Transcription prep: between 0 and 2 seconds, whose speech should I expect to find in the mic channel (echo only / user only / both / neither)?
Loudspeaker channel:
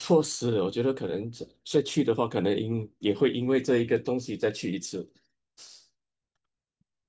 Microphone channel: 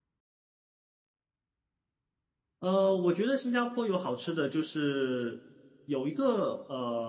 neither